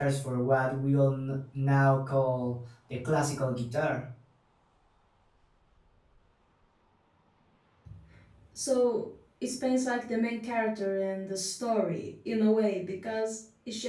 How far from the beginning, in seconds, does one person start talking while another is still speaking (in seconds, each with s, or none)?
none